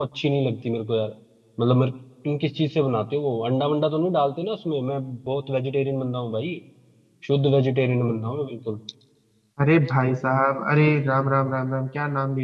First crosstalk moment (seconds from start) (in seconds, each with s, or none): none